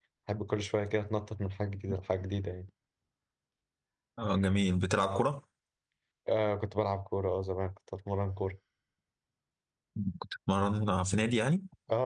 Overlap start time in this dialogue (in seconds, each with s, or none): none